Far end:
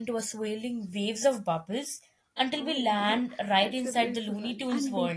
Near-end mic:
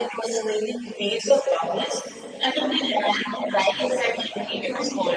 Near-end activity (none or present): present